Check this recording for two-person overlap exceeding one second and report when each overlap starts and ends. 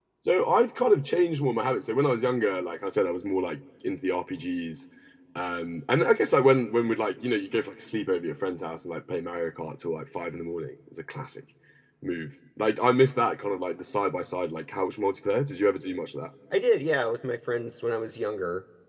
none

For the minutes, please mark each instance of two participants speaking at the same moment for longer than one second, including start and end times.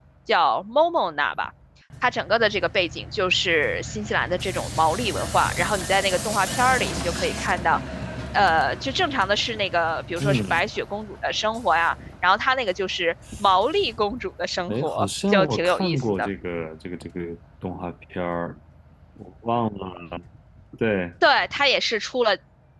14.7-16.3

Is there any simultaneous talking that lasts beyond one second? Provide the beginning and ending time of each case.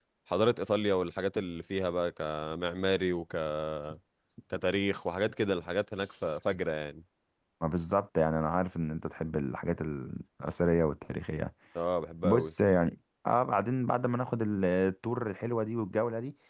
none

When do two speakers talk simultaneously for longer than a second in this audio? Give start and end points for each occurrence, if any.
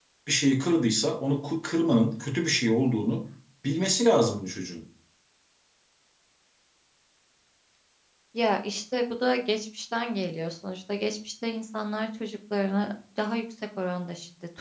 none

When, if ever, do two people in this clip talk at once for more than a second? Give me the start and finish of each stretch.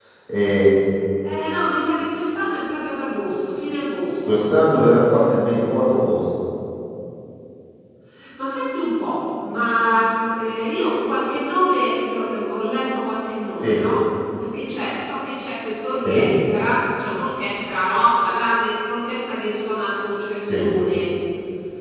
none

